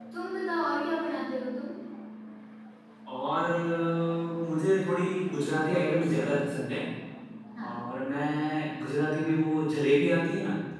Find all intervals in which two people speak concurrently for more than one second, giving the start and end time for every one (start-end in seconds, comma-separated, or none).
none